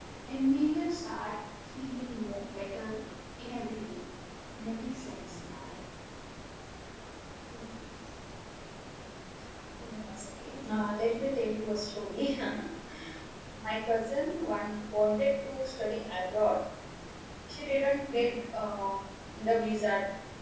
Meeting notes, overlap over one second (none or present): none